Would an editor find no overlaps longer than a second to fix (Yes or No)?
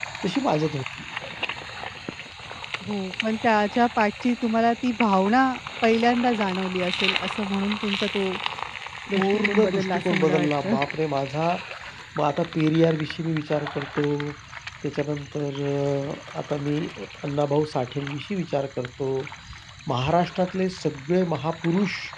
No